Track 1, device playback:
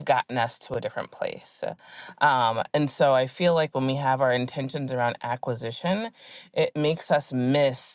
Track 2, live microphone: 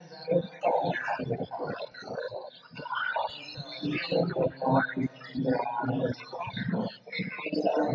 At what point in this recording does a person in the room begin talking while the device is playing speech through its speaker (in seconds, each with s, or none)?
none